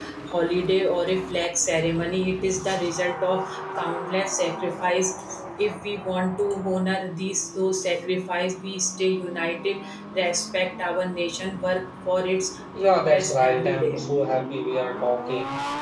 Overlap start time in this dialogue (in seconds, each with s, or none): 12.8 s